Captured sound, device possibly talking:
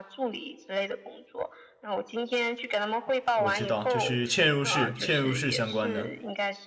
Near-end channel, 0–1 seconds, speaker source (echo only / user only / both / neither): echo only